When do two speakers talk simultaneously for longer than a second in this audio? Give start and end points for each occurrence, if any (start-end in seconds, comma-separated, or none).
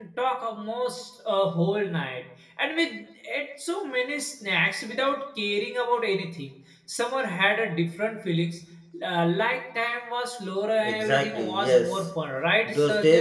10.8-12.1